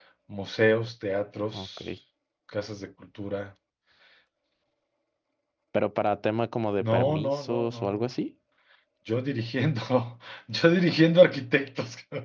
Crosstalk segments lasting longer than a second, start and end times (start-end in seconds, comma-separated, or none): 6.8-8.1